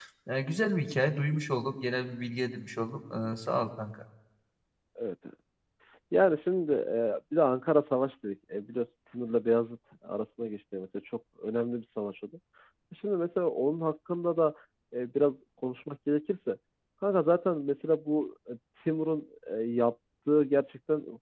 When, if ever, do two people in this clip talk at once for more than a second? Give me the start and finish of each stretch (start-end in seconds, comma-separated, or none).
none